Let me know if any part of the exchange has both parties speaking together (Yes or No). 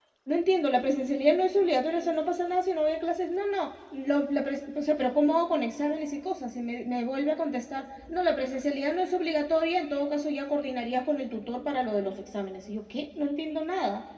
No